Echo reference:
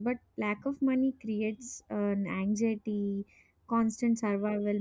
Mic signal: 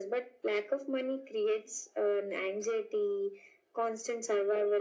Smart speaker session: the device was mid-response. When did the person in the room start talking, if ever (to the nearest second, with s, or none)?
none